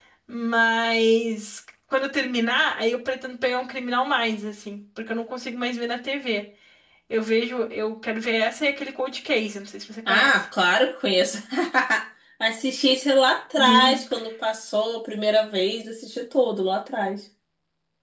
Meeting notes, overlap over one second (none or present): none